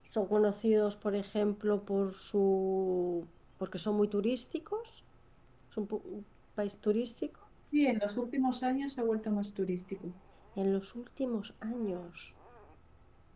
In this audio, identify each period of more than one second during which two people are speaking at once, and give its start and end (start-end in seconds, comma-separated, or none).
none